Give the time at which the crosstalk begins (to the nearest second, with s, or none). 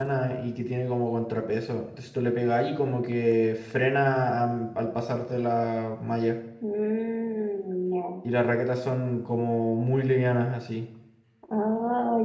none